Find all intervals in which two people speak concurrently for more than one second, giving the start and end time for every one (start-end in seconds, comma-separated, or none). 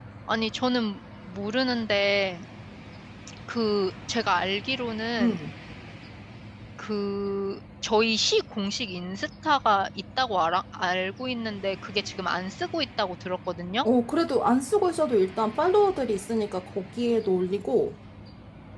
none